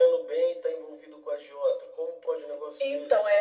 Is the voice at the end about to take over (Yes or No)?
Yes